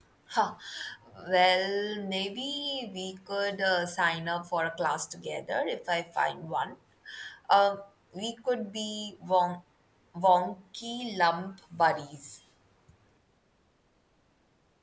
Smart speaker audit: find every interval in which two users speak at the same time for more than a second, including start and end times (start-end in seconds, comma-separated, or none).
none